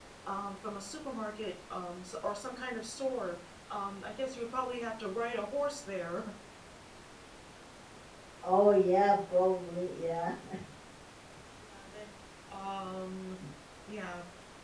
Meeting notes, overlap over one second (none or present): none